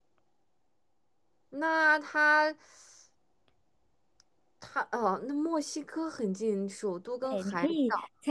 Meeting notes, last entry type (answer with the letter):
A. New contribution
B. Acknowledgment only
A